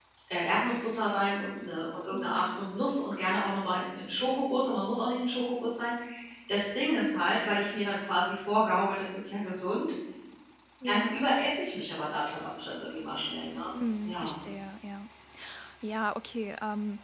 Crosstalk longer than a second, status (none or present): none